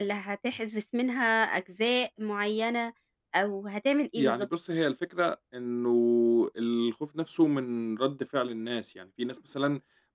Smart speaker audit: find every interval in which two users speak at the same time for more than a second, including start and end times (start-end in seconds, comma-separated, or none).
none